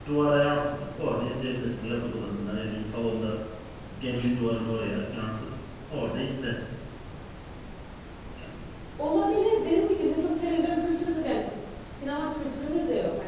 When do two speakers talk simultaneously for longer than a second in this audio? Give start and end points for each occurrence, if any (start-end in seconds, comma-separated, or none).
none